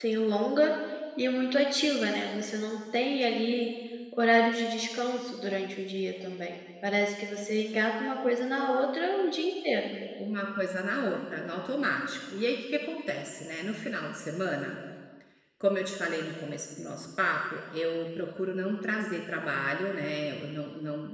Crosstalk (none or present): none